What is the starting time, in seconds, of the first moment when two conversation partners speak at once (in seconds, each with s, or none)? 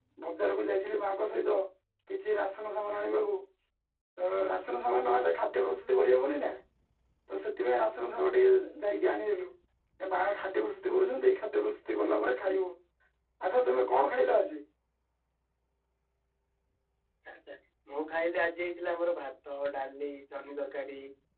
none